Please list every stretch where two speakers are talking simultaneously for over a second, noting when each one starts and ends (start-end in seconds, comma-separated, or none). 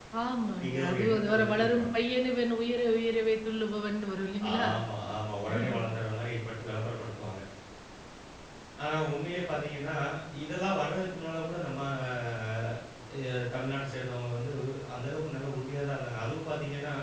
0.6-1.9